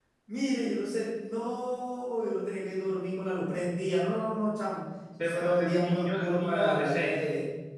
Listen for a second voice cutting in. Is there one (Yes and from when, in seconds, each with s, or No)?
Yes, from 5.2 s